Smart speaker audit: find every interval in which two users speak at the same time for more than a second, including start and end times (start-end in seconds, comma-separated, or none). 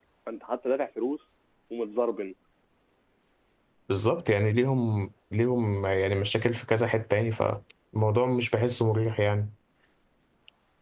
none